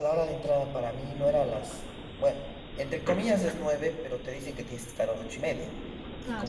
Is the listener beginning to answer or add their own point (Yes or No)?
No